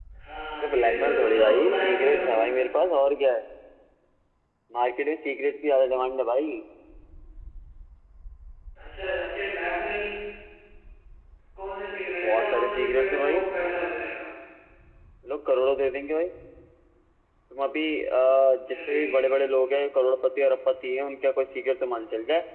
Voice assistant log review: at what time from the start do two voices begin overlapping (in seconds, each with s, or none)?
0.6 s